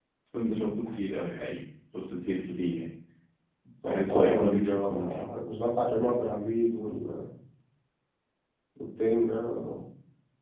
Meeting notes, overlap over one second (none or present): present